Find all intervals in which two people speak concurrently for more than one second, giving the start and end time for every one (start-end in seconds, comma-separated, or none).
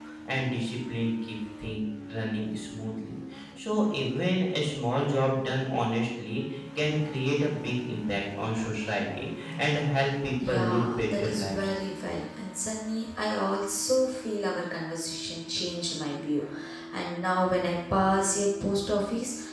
10.5-11.7